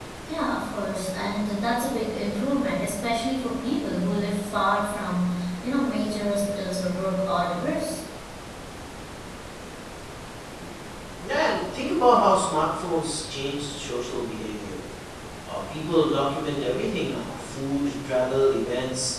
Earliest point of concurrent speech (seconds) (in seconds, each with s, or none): none